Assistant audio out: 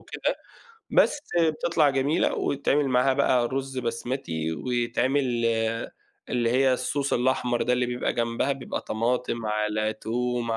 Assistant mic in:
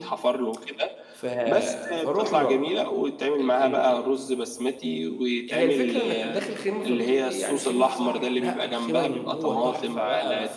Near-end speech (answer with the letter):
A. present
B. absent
A